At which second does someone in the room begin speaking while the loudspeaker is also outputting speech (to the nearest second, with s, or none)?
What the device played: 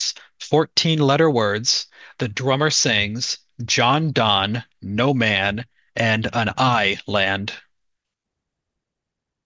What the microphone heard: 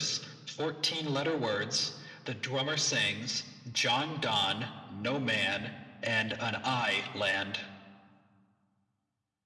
none